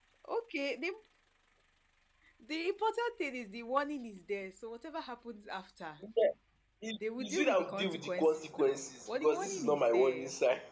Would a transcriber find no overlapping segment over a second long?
No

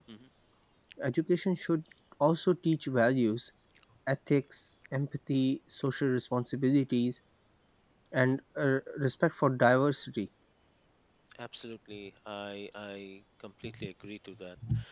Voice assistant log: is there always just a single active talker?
Yes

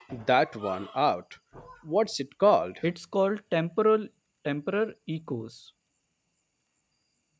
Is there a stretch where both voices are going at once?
No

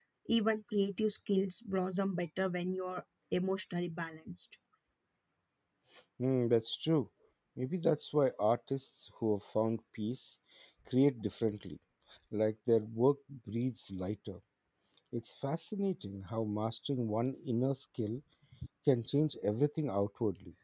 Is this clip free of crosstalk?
Yes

